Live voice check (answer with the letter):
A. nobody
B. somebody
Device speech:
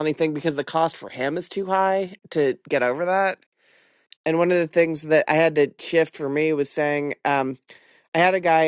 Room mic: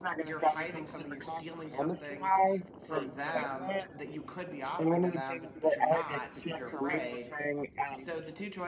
B